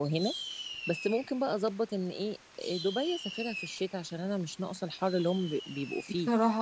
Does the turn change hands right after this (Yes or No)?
No